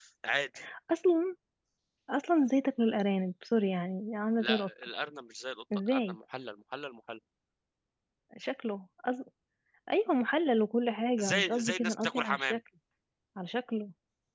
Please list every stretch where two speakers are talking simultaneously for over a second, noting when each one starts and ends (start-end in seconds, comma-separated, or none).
11.2-12.6